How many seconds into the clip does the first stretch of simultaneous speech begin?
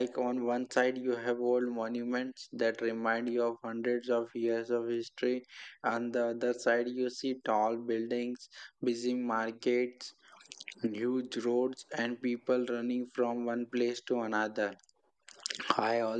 none

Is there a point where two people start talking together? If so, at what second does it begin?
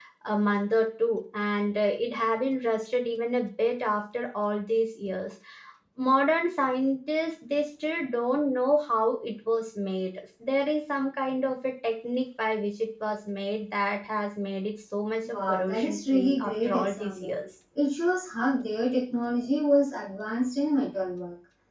15 s

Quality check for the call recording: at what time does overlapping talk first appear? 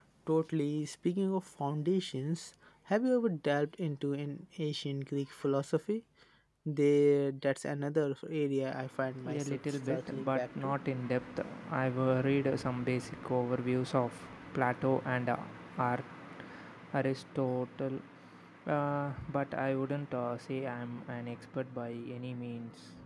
9 s

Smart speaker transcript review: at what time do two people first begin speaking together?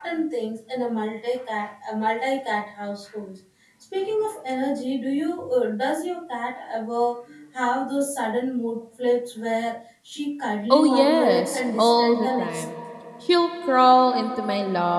11 s

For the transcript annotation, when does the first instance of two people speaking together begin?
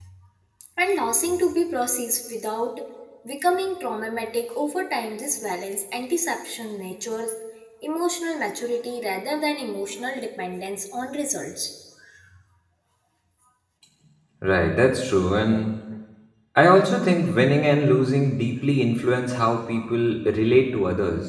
none

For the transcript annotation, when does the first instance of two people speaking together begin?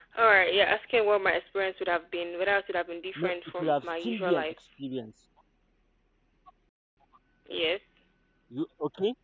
3 s

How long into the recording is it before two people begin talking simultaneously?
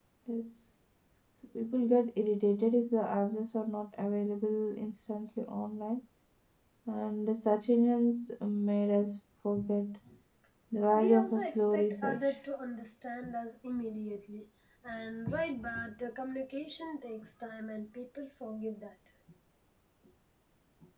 11 s

